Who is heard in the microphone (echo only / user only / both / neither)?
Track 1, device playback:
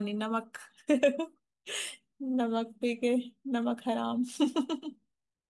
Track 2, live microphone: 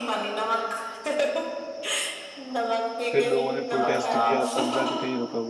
both